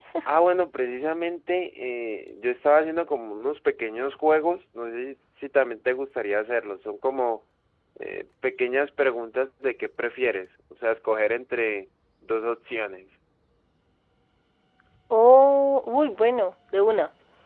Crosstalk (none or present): none